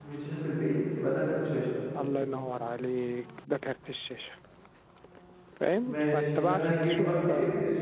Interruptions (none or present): present